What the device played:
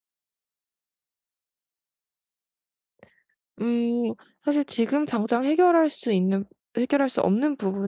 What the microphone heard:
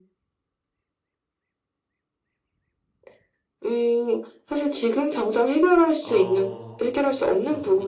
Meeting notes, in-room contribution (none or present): present